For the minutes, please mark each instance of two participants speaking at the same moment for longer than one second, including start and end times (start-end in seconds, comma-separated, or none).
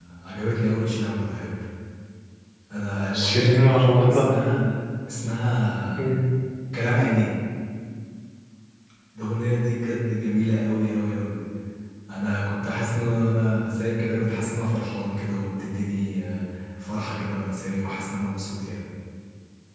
3.1-4.3